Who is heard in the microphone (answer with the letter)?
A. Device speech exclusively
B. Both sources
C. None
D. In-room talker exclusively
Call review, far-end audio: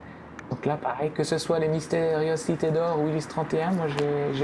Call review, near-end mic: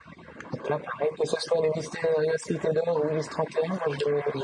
A